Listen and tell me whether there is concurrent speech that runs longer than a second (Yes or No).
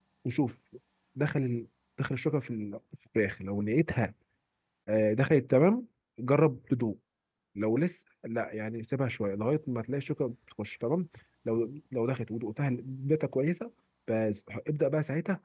No